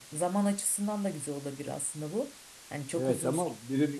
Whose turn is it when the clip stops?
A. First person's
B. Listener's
B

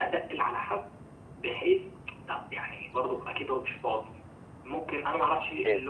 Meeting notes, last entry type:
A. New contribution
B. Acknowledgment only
B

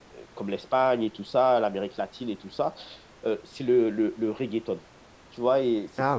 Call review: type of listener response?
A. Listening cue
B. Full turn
A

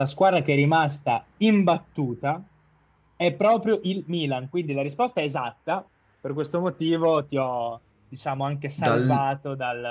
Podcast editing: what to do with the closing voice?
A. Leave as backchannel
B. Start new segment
A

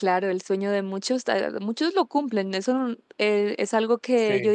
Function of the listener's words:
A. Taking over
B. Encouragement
B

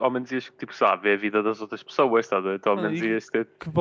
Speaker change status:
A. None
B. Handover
B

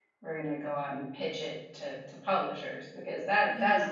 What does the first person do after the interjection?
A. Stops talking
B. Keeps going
B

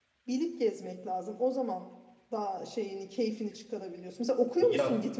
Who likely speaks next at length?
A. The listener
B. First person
A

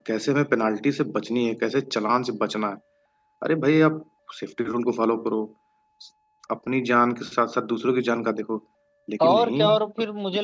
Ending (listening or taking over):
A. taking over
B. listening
A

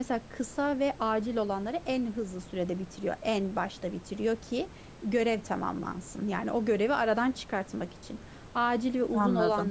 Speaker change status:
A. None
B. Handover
A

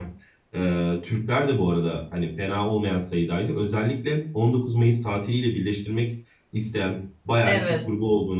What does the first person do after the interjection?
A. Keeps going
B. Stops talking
A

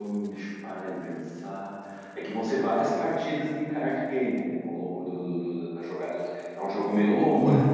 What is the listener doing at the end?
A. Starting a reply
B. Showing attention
B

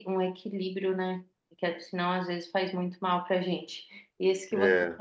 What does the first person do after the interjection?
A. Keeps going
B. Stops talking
A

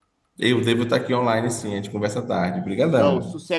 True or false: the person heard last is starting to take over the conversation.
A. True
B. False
A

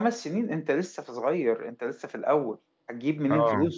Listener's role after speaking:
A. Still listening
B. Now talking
A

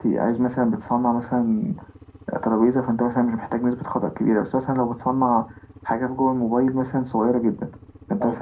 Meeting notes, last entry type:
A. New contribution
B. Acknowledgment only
B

